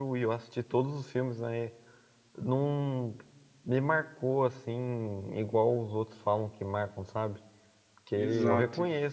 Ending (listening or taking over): listening